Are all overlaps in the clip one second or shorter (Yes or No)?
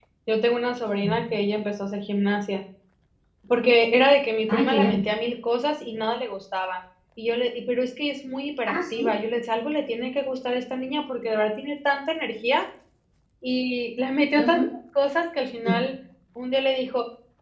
Yes